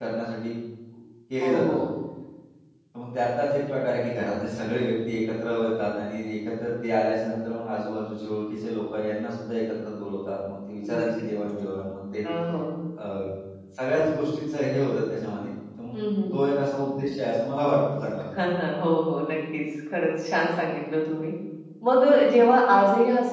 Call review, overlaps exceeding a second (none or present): none